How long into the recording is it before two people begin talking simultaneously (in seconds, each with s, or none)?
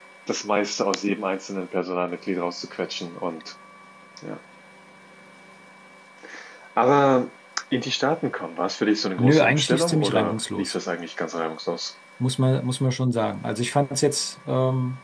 9.2 s